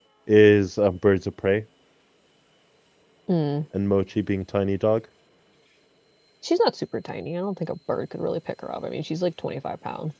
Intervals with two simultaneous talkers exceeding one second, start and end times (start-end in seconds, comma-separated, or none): none